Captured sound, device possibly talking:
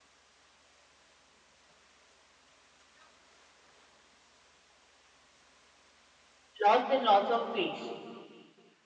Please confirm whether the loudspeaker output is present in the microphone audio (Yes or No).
No